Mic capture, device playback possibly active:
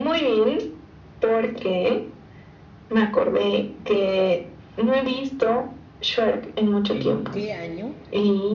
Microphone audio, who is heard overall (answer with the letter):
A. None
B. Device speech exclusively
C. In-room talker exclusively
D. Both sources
D